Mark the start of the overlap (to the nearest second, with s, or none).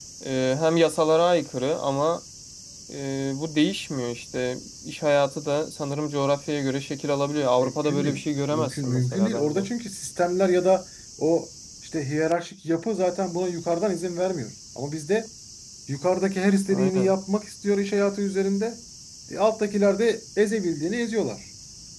8 s